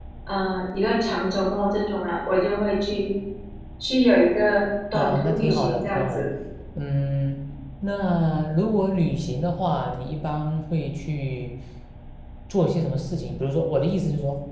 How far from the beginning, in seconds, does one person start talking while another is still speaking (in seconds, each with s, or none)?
4.9 s